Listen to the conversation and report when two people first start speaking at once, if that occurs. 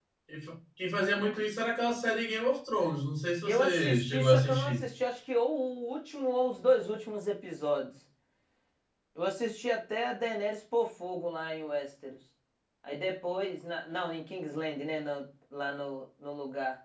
3.5 s

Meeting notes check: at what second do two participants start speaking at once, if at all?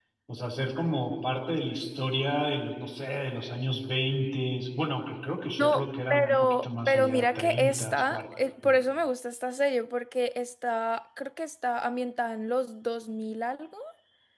5.6 s

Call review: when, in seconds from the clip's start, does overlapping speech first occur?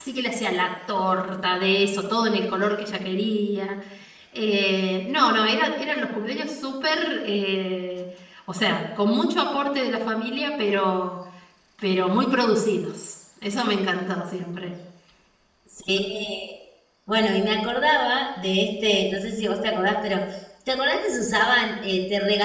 none

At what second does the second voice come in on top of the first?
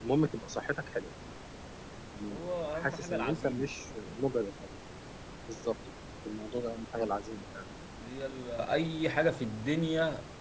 2.3 s

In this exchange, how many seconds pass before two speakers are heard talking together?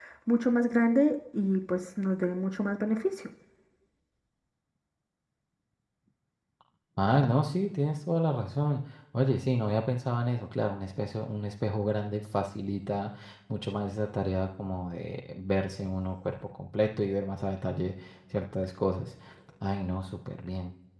none

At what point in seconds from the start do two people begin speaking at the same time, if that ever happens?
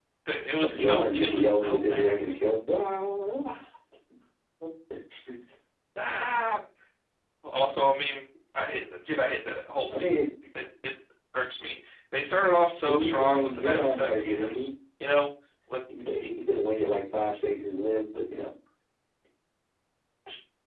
0.6 s

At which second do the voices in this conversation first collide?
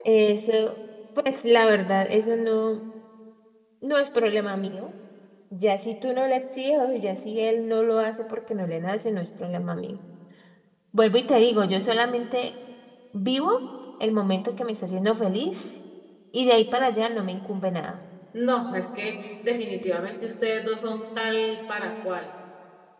none

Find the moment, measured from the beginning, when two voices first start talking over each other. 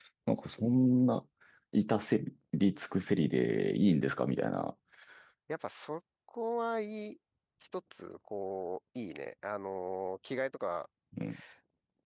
none

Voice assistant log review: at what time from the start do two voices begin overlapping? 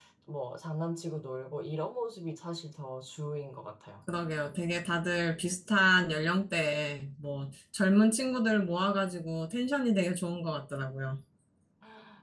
none

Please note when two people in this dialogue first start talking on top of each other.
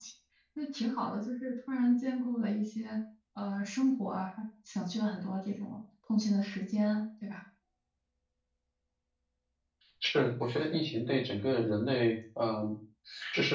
none

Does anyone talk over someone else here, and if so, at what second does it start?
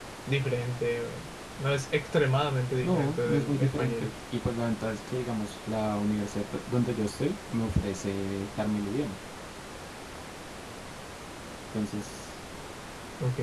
2.8 s

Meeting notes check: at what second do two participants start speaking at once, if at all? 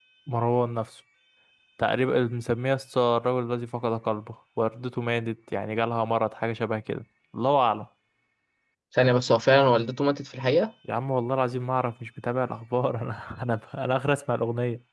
none

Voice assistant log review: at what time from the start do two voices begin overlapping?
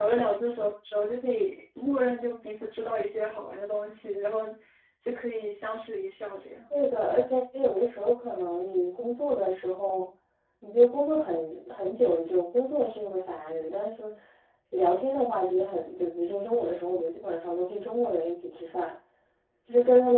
none

